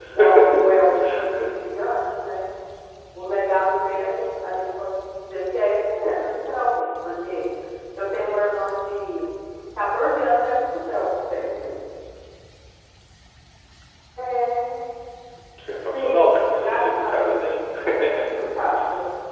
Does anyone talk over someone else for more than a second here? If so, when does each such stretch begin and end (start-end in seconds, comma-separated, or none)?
15.9-17.4